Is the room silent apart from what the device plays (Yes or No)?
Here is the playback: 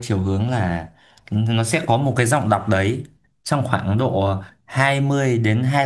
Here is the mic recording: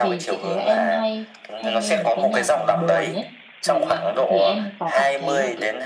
No